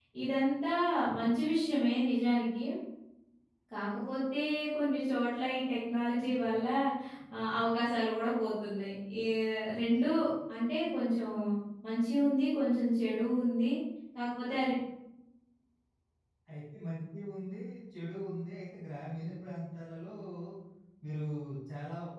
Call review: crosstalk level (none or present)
none